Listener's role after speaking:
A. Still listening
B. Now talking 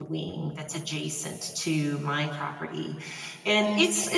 A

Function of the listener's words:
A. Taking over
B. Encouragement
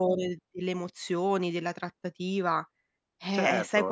A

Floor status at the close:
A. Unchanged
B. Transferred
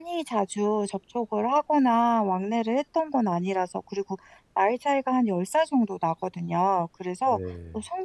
A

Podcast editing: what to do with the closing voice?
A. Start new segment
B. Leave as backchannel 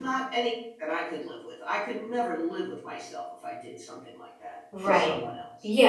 A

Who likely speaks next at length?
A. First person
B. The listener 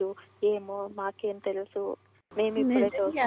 B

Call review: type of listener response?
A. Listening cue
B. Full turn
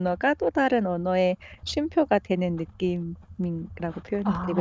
B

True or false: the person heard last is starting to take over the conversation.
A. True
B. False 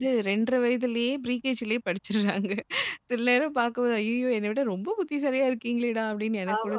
A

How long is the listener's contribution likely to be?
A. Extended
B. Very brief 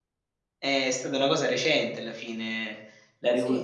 B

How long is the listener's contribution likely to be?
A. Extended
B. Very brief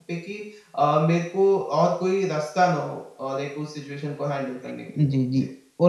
A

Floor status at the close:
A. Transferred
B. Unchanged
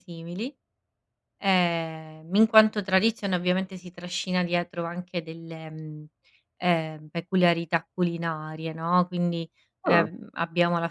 B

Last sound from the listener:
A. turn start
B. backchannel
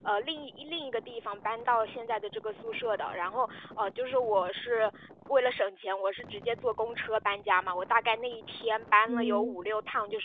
B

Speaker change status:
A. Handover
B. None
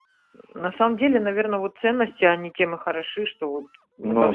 B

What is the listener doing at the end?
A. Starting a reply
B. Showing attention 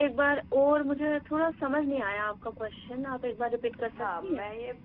A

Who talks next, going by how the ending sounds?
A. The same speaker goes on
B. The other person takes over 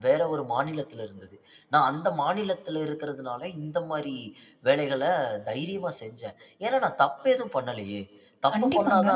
A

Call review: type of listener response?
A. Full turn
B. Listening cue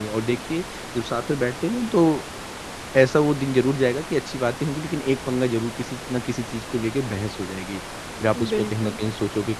B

